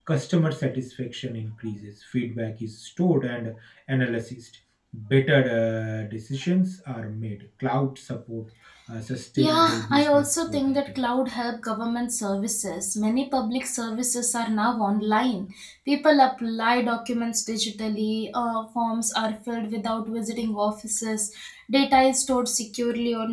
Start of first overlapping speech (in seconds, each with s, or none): 9.4 s